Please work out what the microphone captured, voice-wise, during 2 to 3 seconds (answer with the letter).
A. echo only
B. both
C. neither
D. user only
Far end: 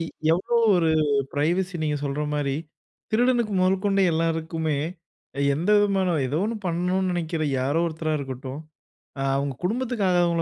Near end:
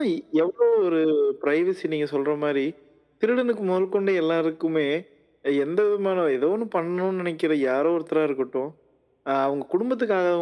A